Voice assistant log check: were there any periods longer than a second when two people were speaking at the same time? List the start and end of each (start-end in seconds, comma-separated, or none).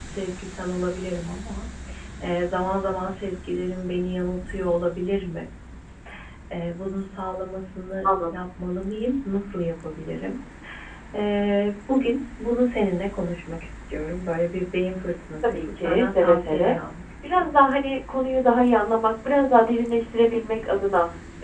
15.5-16.8